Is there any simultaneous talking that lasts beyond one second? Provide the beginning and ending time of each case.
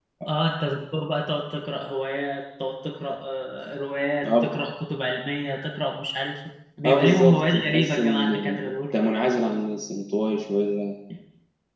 6.8-8.6

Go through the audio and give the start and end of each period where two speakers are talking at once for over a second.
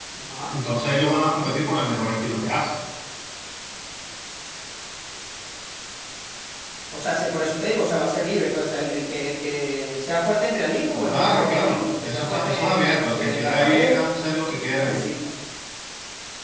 11.0-14.0

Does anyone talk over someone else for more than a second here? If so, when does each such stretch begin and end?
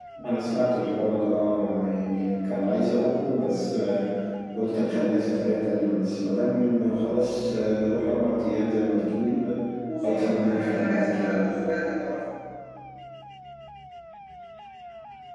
10.0-11.4

